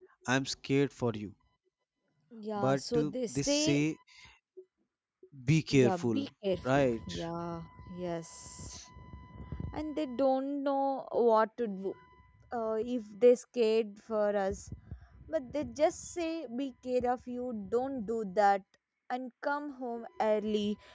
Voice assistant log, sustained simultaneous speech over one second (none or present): present